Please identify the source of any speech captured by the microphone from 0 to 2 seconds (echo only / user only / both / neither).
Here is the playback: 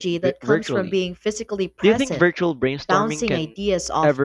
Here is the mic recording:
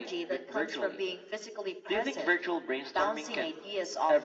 echo only